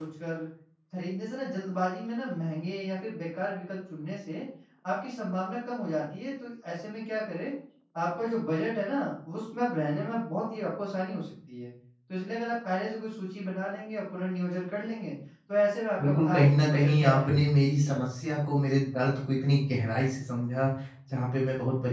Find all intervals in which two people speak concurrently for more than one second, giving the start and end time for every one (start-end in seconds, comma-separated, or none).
16.0-18.0